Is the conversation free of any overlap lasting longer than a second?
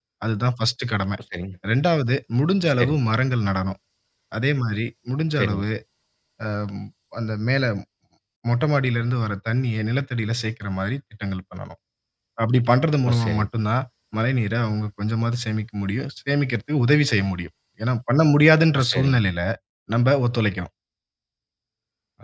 Yes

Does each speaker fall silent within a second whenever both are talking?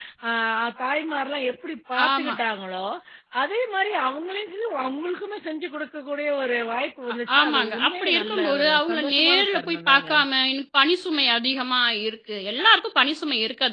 No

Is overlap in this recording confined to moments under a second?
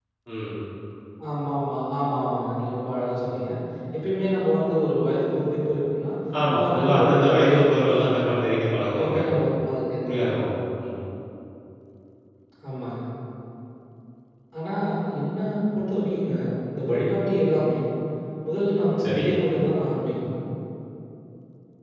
No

